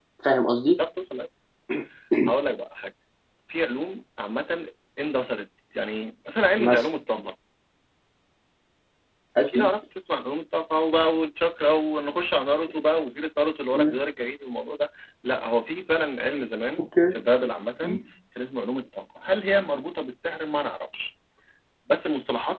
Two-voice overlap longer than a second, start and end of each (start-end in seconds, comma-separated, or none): none